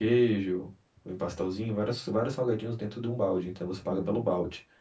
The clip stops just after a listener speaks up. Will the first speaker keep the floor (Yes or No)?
No